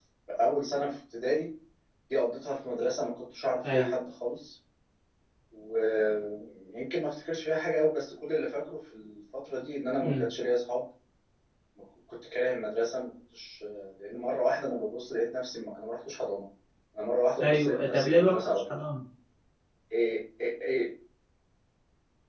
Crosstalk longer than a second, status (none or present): present